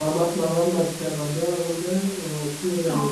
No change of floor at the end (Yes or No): No